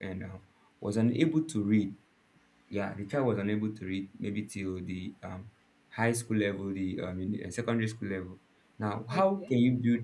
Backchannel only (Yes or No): Yes